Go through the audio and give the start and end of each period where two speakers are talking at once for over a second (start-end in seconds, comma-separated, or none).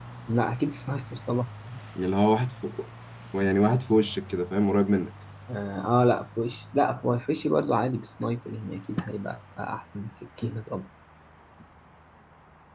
none